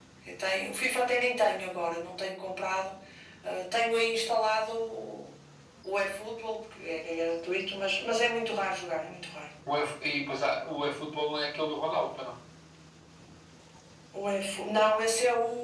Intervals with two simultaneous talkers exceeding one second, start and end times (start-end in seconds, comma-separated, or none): none